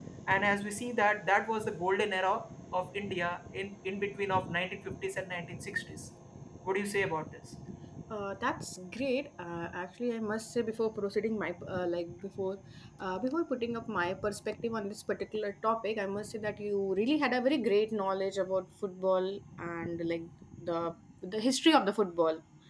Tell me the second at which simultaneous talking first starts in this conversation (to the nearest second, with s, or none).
none